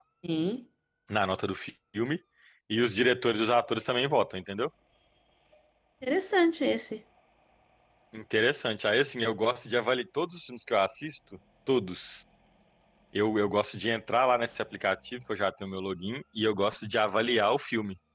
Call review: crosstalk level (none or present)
none